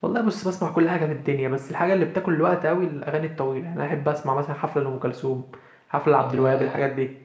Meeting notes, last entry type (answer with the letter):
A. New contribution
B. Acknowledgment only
A